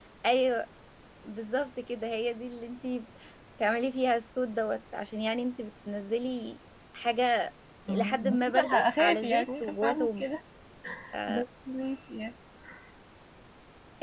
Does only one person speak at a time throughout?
No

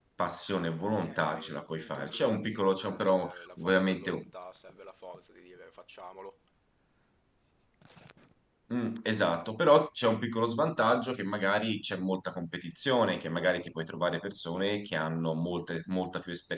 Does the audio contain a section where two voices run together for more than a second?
Yes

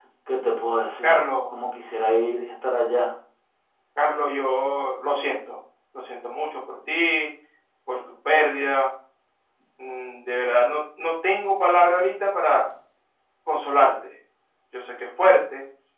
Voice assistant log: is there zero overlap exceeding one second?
Yes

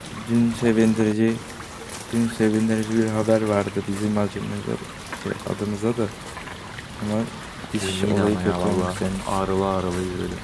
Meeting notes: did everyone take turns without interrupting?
No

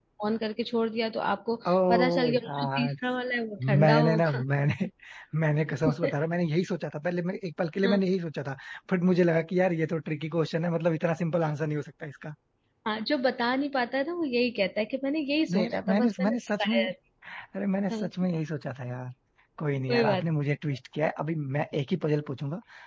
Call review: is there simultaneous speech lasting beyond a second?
Yes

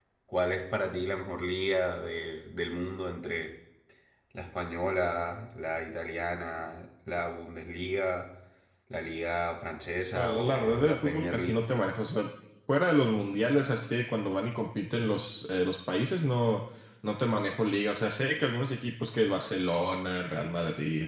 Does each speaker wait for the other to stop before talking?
No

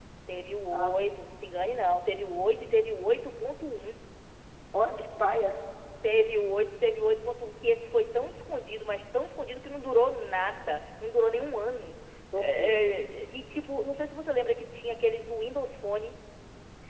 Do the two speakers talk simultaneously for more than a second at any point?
No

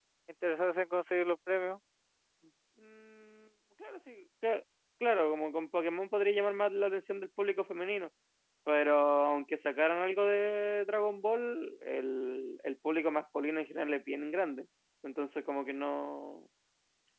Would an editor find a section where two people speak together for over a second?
No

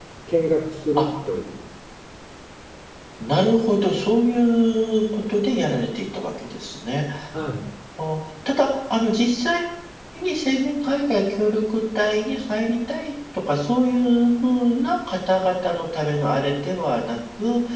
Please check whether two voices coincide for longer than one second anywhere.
No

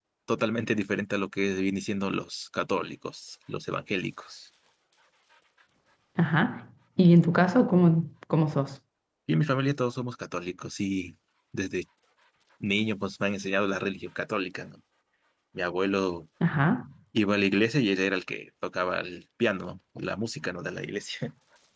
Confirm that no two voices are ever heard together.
Yes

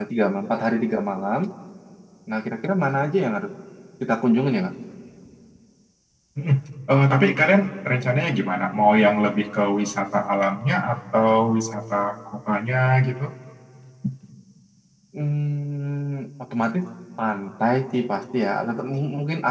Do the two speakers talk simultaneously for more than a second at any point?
No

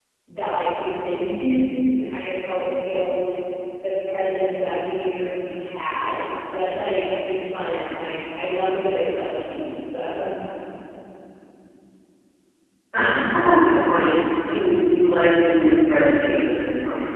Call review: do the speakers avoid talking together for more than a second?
Yes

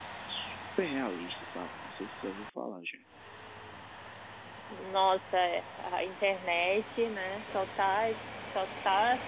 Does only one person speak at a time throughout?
Yes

